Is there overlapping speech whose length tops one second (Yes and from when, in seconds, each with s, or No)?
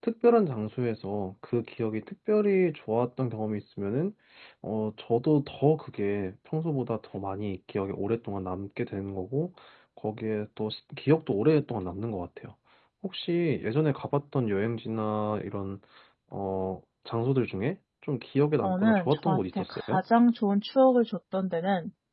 Yes, from 18.6 s